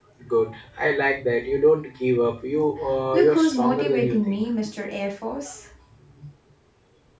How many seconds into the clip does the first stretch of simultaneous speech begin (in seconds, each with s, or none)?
3.1 s